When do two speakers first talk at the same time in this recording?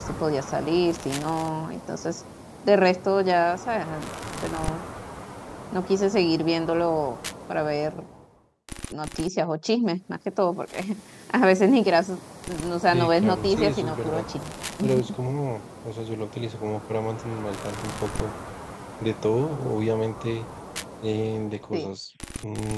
13 s

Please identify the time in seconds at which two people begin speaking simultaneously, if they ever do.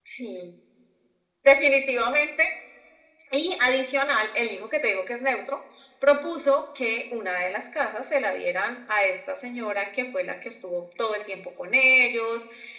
none

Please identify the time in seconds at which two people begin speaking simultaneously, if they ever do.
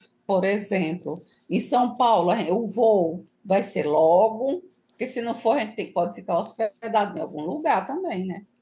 none

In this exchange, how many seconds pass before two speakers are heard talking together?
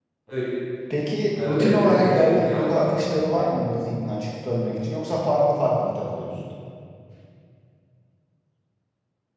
1 s

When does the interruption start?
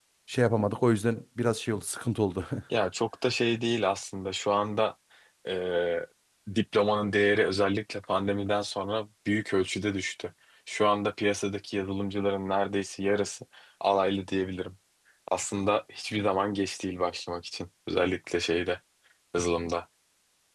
none

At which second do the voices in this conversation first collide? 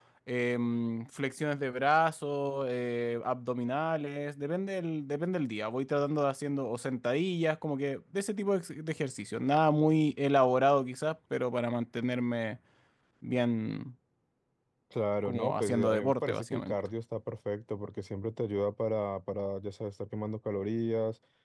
15 s

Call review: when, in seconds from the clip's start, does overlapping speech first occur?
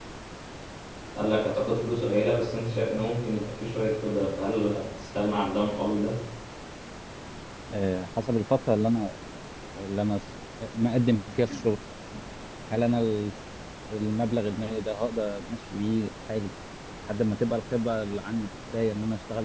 none

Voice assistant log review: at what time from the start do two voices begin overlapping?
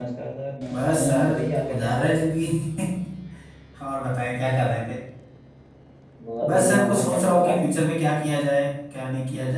1 s

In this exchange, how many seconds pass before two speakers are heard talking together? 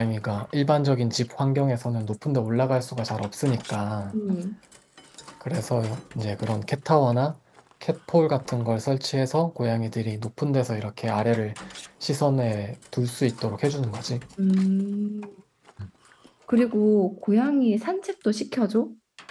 none

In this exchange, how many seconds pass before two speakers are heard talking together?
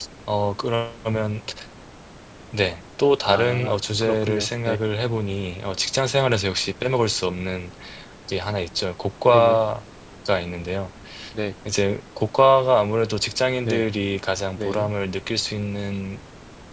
3 s

